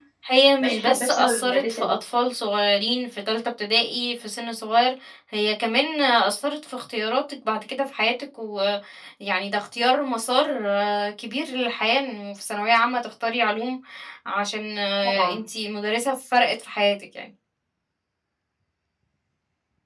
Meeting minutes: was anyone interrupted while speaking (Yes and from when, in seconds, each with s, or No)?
Yes, from 0.6 s